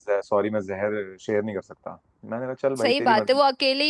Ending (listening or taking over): taking over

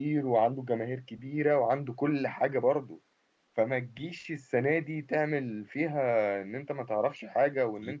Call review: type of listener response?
listening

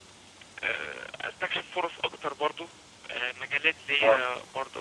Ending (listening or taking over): listening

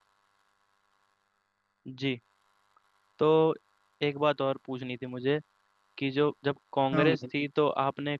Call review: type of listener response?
listening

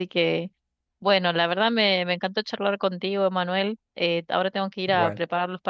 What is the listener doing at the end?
listening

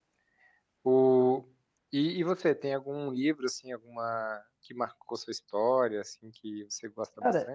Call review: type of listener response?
taking over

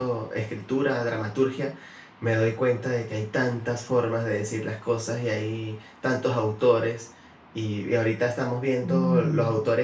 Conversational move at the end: listening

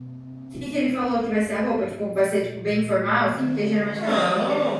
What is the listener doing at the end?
taking over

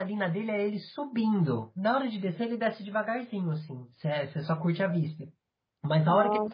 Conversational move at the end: listening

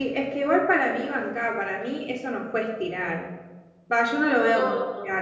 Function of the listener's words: listening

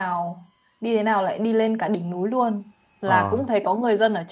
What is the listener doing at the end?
listening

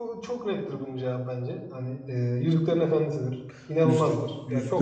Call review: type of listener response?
taking over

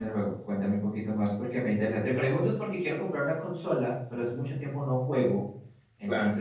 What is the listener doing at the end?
listening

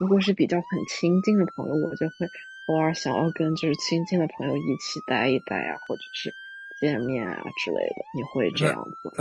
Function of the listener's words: taking over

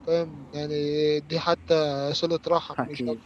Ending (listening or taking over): taking over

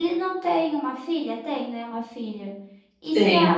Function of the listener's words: listening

